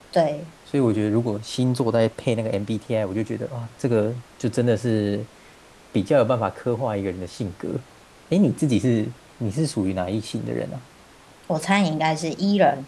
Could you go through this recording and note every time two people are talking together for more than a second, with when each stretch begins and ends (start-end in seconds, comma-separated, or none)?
none